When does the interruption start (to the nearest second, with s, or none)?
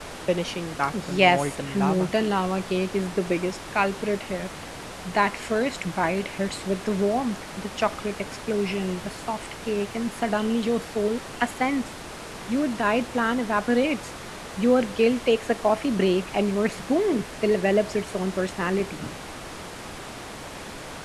1 s